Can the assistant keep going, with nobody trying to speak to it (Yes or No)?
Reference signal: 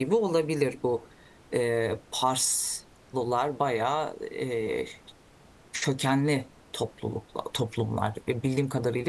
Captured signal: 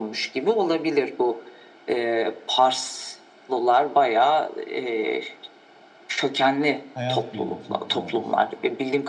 No